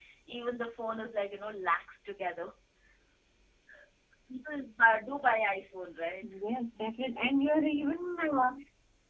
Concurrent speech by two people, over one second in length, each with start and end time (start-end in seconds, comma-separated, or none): none